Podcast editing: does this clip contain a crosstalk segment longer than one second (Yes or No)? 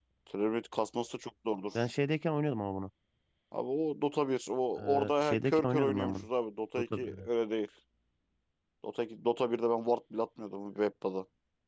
Yes